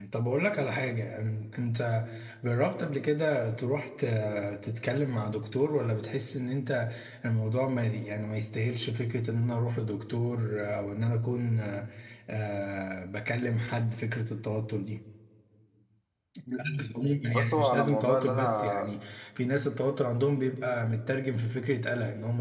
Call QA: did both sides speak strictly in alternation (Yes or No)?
No